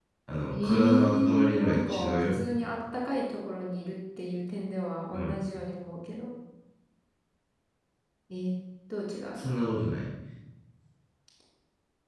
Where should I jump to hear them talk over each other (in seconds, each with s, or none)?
0.5 s